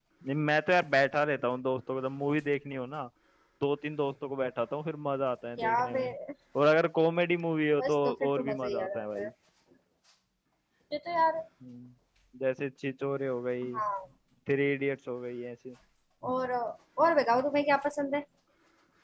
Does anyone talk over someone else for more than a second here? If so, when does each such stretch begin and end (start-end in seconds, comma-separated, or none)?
7.8-9.3